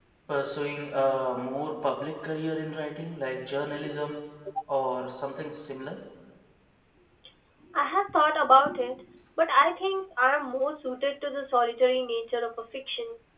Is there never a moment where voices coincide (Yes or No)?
Yes